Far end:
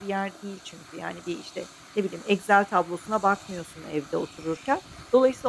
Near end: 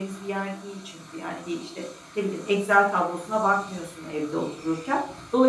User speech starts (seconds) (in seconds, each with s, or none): none